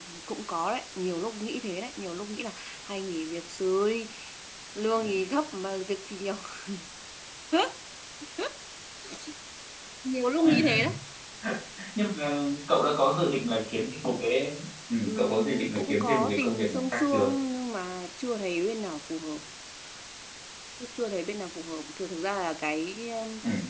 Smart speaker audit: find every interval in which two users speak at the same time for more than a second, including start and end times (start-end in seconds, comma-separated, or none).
15.1-17.3